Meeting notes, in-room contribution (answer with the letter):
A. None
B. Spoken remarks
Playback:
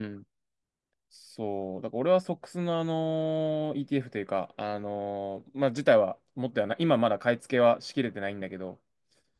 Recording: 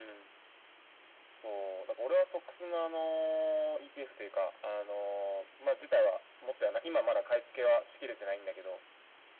A